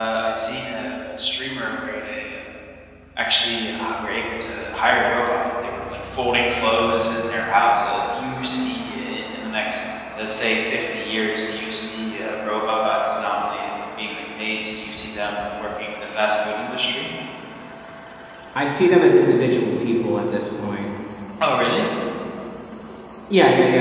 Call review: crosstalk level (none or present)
none